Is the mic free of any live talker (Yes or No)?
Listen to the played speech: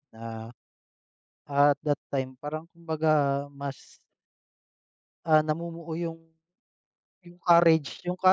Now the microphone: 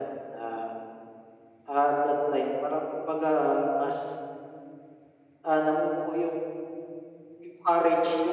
Yes